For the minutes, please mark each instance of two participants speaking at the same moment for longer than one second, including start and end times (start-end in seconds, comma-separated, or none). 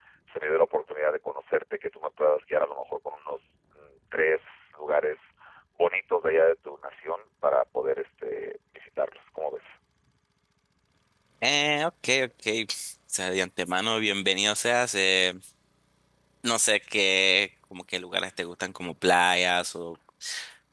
none